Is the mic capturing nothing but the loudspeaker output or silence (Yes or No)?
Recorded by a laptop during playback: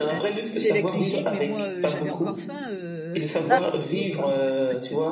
No